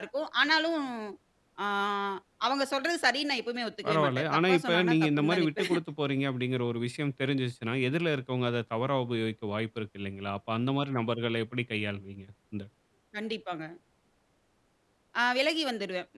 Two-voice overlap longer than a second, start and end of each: 3.9-5.7

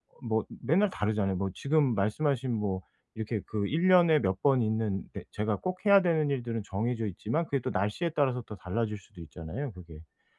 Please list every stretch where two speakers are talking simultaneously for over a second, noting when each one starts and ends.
none

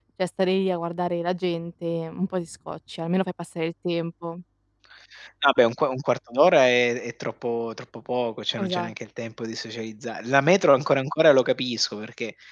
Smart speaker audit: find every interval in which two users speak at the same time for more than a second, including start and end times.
none

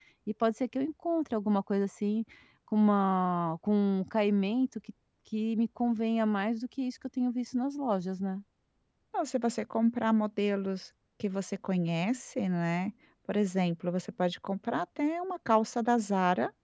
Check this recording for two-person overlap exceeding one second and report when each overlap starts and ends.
none

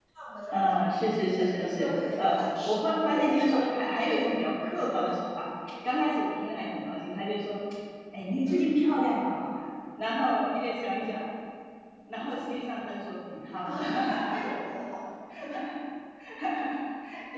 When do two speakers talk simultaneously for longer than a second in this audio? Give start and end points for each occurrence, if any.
1.4-3.6

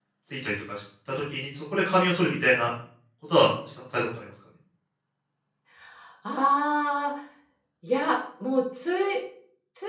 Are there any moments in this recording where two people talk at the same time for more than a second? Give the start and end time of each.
none

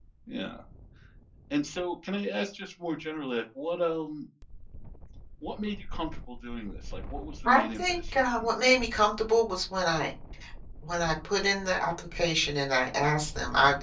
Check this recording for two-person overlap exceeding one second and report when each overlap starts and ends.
7.4-8.8

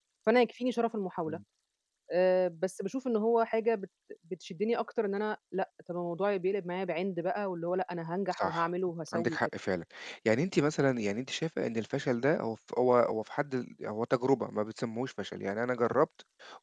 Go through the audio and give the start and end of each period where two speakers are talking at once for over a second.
none

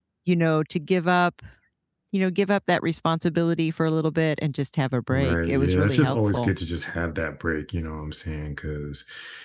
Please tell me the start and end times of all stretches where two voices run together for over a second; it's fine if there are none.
5.1-6.6

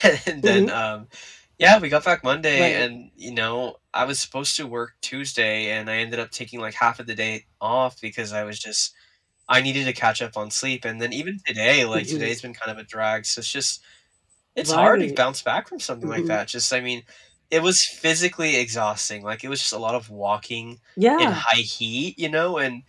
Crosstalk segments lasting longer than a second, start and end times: none

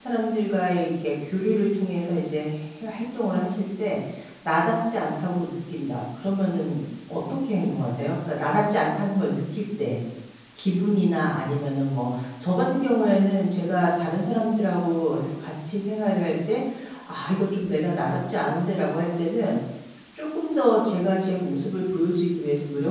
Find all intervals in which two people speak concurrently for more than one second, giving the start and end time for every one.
none

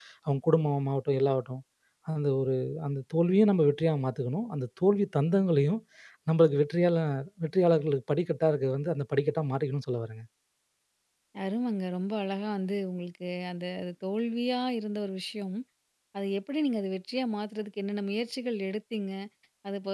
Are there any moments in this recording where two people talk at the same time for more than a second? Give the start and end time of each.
none

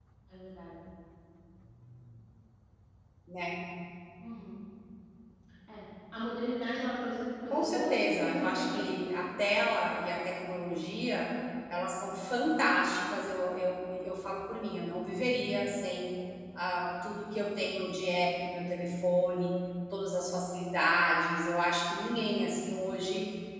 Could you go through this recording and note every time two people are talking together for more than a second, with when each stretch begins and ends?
7.5-9.0

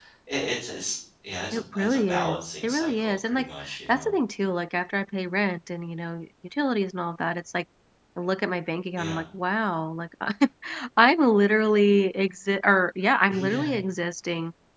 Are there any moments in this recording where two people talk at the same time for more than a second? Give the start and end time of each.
1.5-4.1

